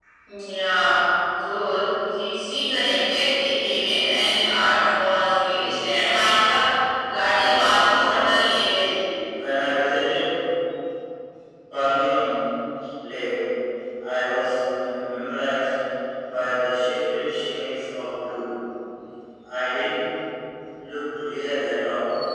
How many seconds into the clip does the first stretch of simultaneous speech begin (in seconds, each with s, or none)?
7.2 s